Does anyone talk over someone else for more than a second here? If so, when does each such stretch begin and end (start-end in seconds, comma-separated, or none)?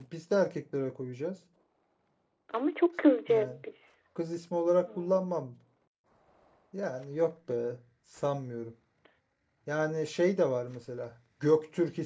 none